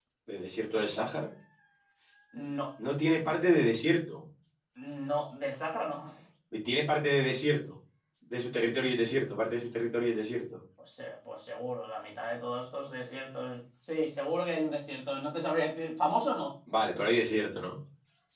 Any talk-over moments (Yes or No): No